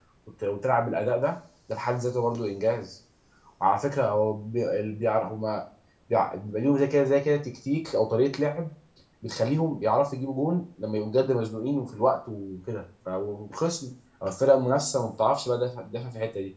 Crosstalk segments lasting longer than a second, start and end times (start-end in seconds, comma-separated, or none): none